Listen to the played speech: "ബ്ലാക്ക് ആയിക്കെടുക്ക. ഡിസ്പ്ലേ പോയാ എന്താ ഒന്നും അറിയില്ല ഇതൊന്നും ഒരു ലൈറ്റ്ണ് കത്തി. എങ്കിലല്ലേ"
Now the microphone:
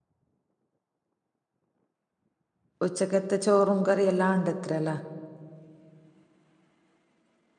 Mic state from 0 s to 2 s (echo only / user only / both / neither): neither